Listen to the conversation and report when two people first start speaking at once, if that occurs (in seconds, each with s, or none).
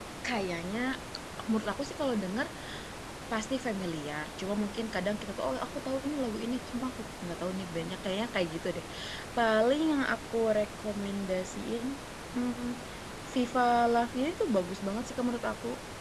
none